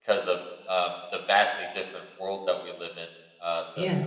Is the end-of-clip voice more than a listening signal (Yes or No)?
No